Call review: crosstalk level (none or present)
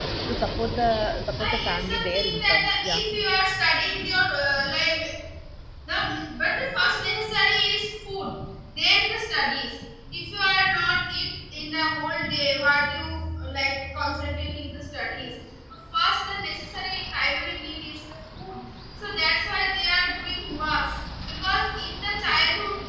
present